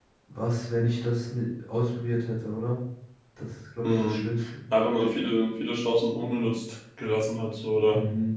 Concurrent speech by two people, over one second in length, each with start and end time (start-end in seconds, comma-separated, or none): none